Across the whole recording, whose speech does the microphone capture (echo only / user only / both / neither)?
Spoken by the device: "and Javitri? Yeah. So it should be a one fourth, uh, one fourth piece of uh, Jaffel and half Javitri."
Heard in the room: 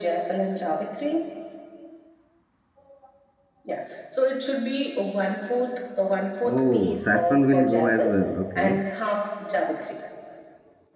both